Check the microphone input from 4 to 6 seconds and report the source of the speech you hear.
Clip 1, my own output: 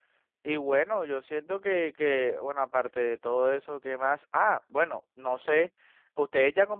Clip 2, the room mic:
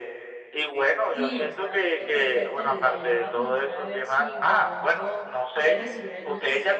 both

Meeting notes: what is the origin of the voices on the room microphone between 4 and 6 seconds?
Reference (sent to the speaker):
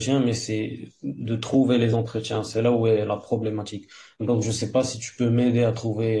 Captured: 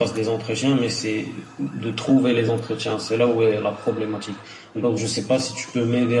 echo only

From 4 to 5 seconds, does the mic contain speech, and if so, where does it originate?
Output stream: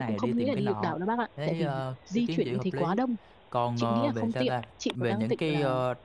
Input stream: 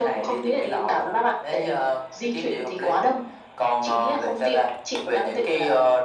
echo only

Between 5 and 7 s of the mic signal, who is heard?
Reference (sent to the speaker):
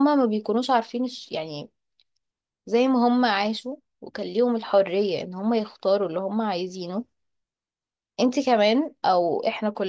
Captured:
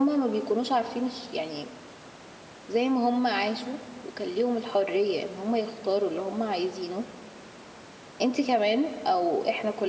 echo only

